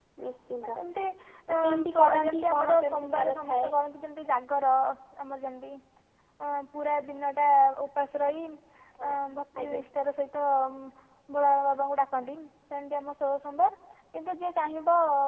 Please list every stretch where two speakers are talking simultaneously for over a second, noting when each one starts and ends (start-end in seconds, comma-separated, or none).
1.6-3.7